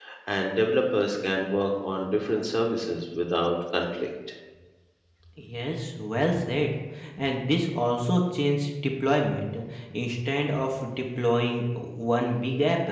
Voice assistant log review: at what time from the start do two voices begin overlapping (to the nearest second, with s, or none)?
none